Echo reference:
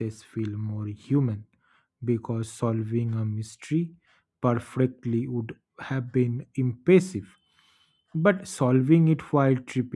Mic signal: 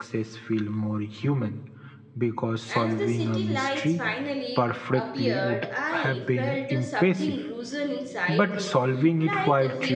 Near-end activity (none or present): present